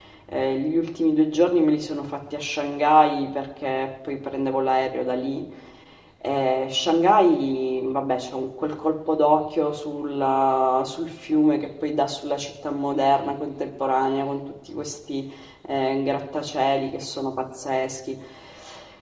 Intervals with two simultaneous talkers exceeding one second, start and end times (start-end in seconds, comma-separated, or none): none